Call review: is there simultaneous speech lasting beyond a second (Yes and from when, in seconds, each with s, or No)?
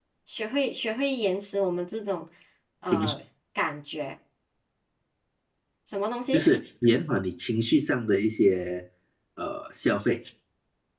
No